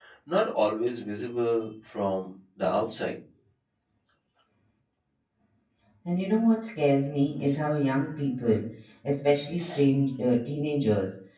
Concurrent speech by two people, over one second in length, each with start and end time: none

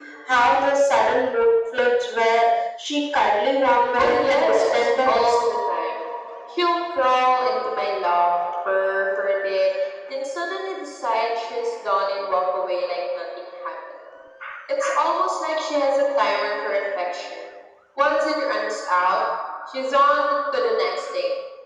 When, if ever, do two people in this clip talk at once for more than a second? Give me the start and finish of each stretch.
4.0-5.4

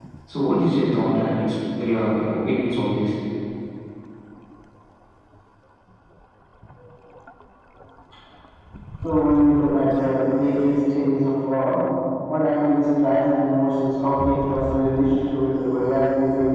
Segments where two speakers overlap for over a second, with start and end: none

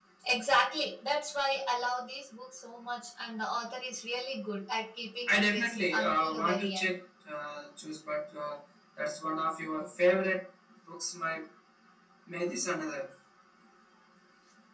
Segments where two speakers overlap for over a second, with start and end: 5.3-6.9

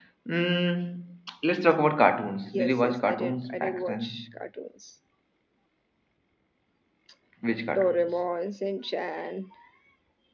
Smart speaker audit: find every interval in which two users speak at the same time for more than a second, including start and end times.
2.5-4.2

